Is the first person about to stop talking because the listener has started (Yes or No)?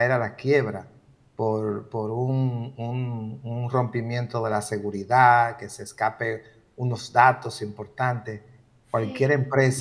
No